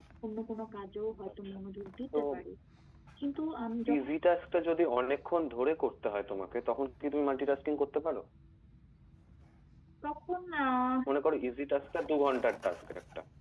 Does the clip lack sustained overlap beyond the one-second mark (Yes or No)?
Yes